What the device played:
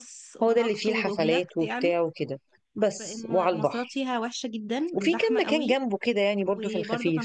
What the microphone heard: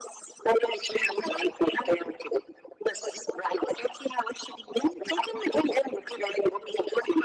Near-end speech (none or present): none